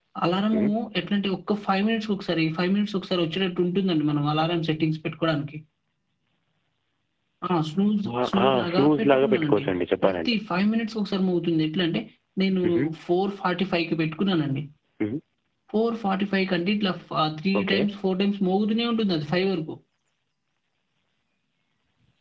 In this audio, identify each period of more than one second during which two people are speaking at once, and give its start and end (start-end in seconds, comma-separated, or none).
8.2-9.6